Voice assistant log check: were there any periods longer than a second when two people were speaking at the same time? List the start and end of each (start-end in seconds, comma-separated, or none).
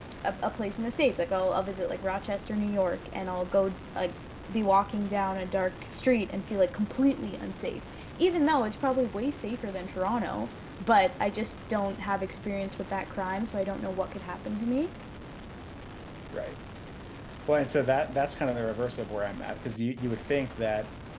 none